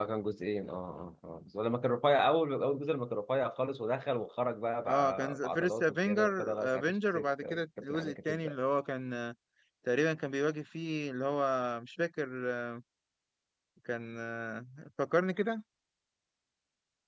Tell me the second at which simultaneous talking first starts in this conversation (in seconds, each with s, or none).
4.9 s